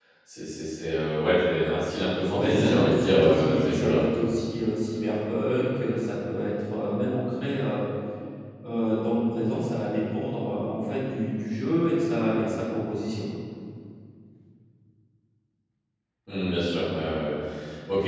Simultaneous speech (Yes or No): Yes